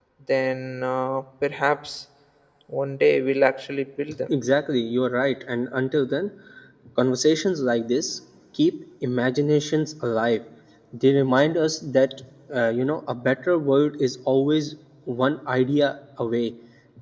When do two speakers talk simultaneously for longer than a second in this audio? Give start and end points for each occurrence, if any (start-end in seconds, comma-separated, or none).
none